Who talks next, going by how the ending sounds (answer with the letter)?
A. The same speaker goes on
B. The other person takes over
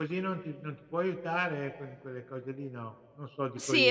B